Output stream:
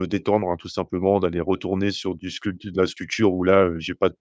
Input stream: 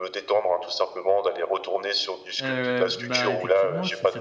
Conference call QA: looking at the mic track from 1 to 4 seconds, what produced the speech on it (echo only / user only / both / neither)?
both